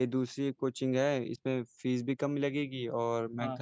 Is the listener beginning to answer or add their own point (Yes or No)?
No